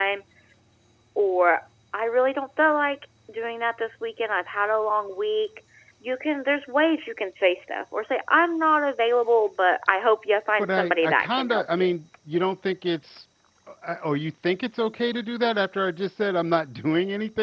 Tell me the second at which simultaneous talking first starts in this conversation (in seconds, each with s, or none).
10.6 s